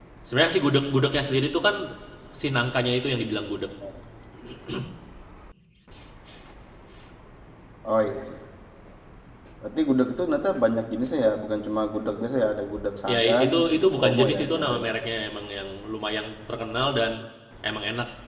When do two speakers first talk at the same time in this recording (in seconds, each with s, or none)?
13.1 s